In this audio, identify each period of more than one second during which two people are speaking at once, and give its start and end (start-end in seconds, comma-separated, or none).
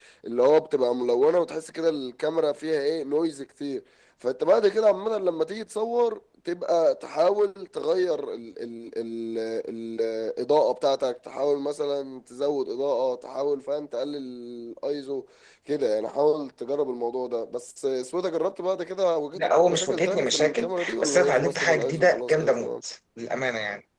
19.4-22.7